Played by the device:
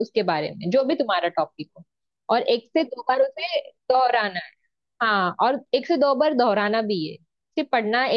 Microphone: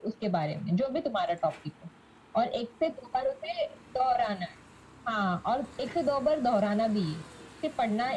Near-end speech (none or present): none